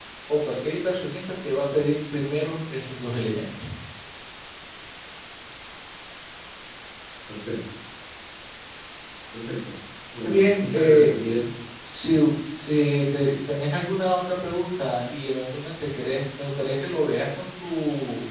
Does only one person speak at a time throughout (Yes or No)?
No